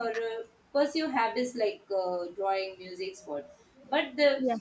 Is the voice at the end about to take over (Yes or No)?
No